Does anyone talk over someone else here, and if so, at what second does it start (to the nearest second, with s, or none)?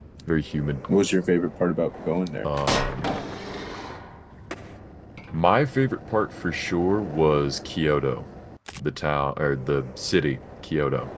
none